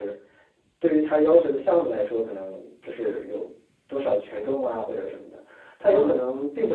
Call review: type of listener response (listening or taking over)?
listening